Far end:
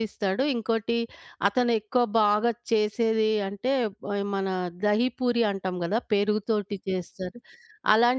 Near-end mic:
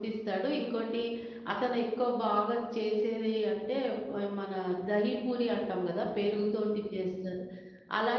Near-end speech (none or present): none